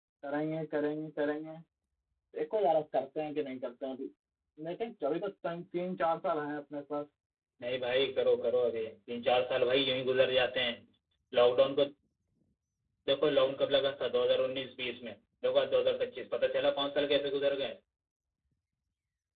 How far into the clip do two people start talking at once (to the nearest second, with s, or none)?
none